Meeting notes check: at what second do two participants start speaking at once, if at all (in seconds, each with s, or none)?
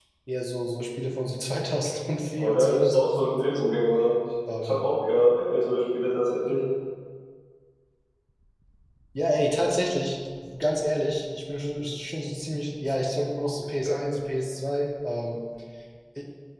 2.4 s